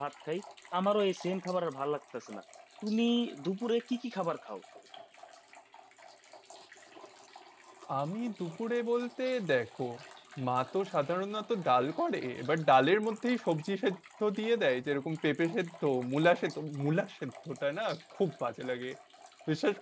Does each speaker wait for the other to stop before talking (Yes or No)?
Yes